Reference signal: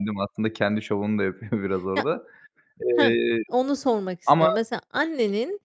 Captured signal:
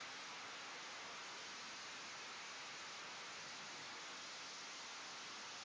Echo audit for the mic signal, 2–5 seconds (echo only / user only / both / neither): neither